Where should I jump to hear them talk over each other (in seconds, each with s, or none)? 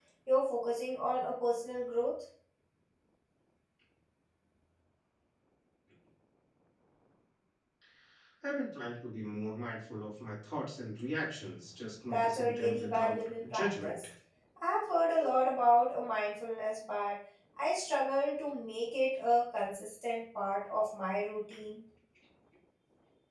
12.1 s